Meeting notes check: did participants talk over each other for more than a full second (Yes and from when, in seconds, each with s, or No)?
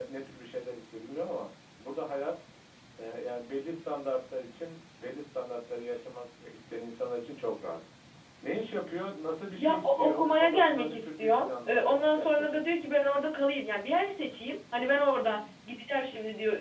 Yes, from 9.6 s